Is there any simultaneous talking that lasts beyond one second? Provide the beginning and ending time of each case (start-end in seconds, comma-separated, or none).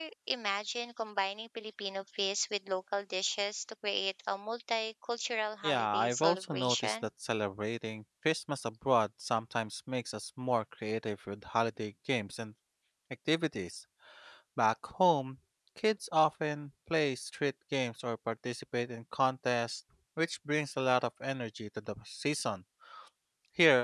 5.6-7.0